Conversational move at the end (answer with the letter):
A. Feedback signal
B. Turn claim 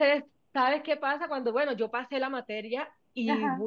A